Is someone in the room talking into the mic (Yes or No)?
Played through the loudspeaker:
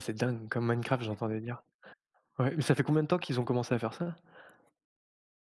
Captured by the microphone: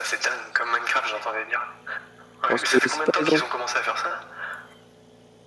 Yes